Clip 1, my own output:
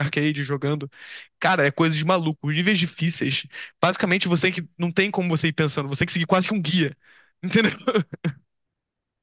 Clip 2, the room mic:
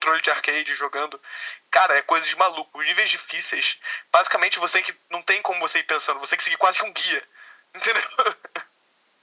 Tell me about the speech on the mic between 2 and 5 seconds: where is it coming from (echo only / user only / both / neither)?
echo only